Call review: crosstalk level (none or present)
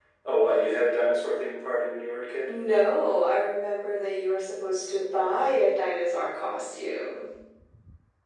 none